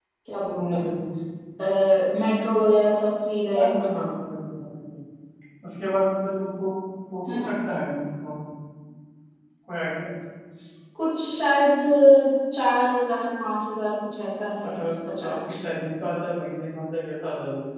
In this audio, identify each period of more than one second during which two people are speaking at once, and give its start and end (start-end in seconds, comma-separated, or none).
none